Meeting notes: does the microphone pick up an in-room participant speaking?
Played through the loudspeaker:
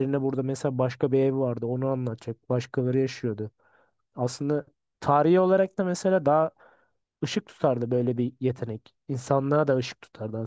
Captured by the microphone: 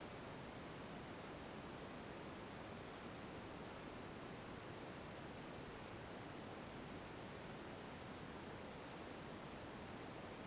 No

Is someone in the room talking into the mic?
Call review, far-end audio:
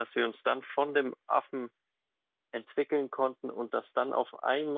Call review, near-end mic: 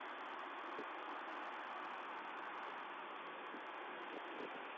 No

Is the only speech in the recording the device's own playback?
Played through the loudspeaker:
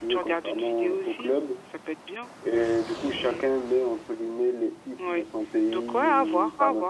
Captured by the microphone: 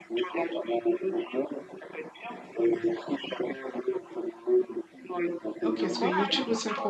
No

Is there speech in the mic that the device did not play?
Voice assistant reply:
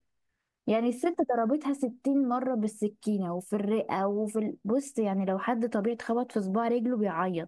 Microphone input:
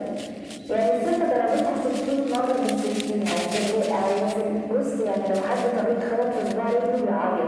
No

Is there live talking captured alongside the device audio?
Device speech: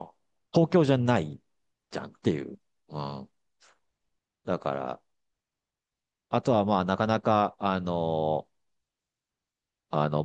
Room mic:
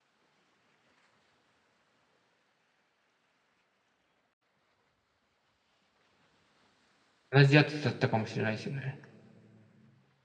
Yes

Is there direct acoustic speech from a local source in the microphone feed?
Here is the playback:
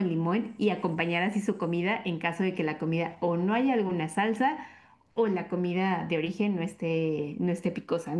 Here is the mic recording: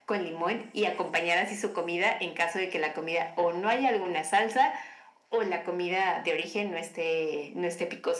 No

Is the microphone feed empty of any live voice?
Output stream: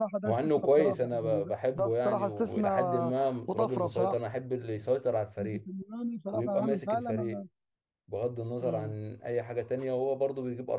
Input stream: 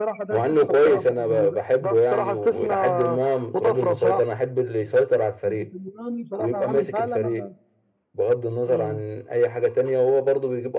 Yes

